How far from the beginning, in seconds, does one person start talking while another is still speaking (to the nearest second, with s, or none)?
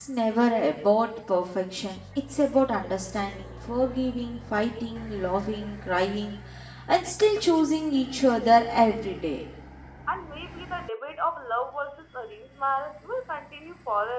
none